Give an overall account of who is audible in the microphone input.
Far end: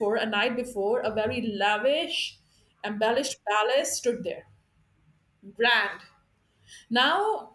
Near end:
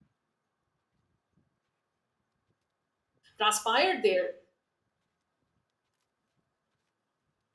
user only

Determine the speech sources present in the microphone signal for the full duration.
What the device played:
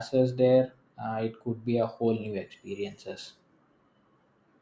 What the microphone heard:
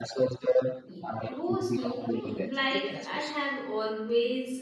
both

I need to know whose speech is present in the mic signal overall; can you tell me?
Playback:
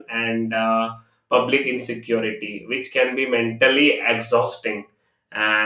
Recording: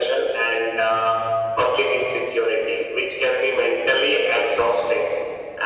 echo only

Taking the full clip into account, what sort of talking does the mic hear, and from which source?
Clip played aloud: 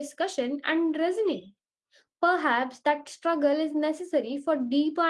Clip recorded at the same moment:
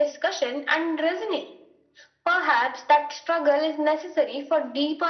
echo only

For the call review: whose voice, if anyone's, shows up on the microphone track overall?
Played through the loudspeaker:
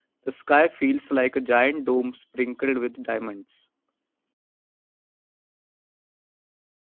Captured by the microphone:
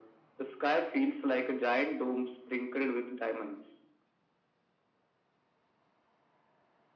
echo only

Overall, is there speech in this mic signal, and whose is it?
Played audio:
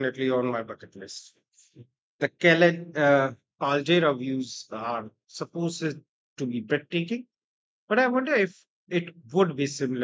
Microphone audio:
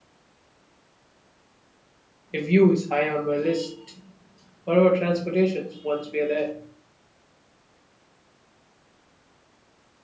user only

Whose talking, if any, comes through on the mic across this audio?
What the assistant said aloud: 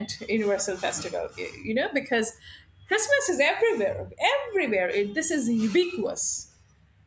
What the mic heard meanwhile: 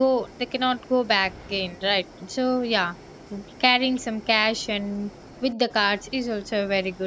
user only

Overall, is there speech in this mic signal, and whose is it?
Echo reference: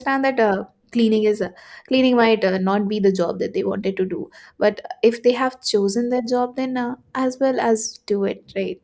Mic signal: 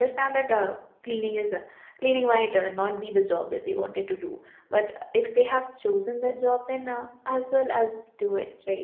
echo only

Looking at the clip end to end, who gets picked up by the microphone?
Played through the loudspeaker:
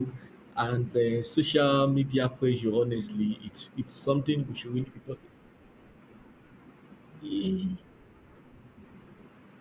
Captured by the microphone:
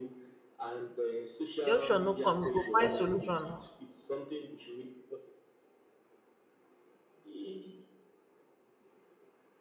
both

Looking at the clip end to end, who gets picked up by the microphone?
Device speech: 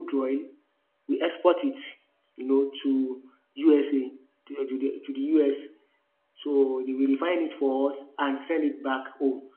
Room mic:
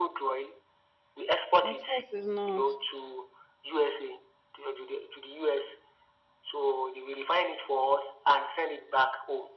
both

